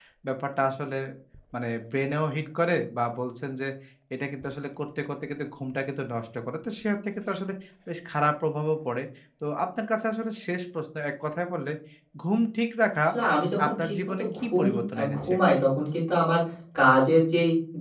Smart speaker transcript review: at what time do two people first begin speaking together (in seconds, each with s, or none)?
13.7 s